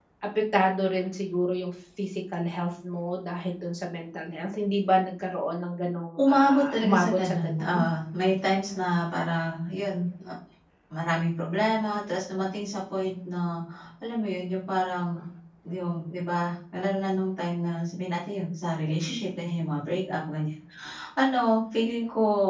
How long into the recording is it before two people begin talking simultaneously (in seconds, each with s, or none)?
6.2 s